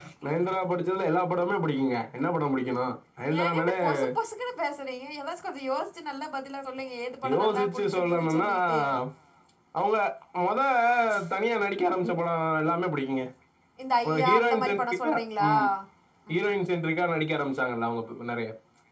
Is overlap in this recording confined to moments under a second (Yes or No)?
No